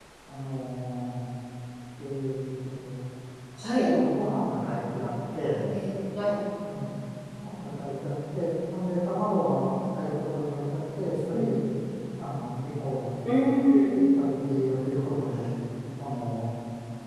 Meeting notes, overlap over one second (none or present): none